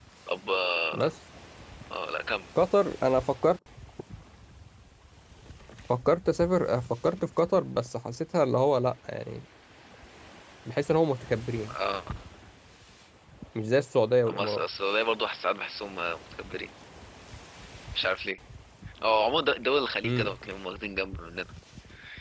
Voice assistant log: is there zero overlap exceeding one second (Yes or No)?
Yes